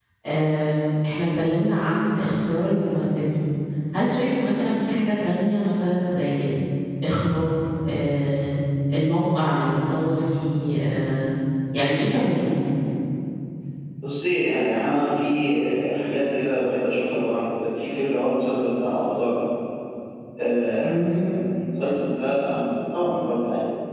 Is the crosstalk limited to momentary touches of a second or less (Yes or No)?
Yes